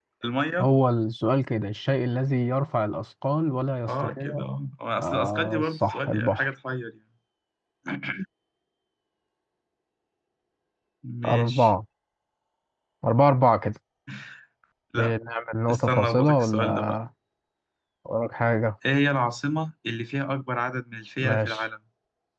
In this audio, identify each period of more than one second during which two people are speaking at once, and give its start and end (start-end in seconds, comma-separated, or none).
5.0-6.5, 15.7-17.0